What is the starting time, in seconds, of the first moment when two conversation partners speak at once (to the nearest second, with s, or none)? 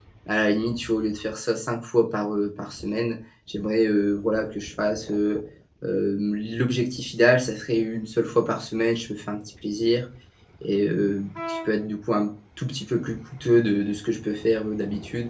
none